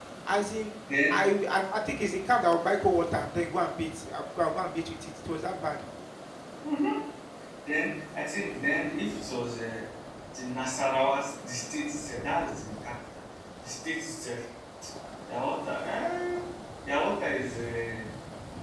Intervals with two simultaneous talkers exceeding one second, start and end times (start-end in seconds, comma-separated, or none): none